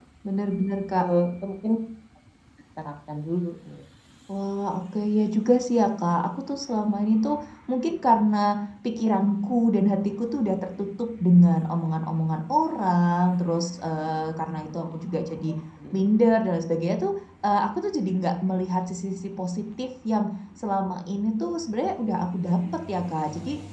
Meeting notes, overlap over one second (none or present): none